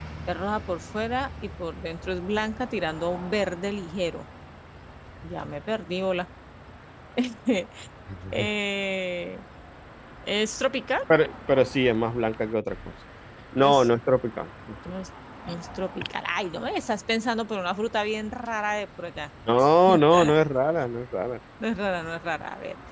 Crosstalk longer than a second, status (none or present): none